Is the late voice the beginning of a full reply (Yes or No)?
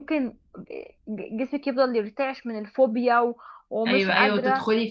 Yes